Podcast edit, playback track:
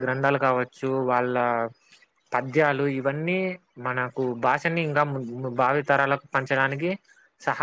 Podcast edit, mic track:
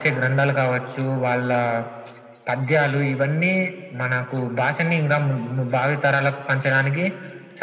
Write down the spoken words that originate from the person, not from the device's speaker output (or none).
none